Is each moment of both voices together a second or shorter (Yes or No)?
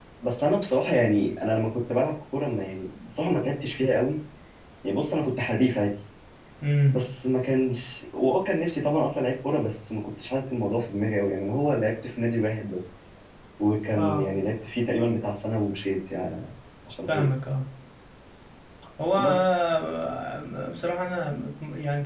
Yes